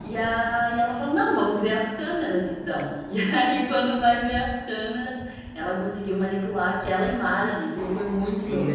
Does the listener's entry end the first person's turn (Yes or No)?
Yes